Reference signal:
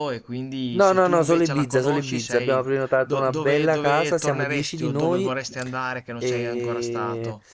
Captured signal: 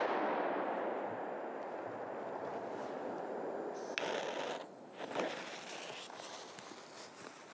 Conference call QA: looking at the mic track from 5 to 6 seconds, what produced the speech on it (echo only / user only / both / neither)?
neither